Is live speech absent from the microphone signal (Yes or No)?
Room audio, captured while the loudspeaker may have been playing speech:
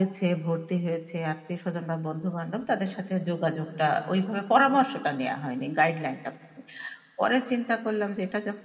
Yes